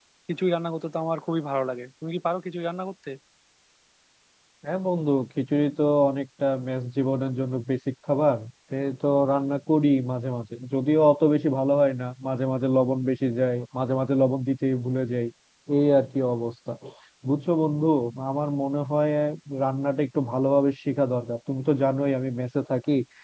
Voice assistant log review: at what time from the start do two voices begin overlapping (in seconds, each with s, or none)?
none